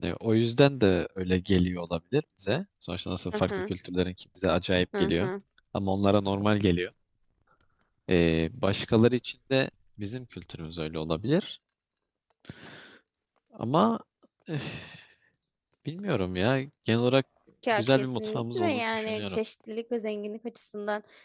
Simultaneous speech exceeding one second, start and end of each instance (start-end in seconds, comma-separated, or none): 17.7-19.4